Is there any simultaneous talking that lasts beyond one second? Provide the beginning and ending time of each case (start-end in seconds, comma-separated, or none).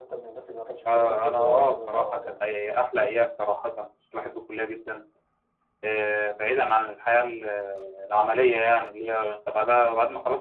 0.9-2.4